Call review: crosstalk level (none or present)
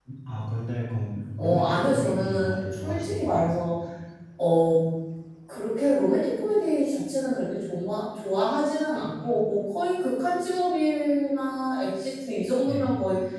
present